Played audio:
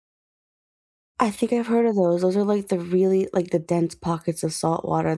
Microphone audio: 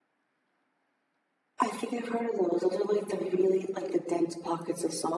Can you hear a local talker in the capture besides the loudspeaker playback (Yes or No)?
No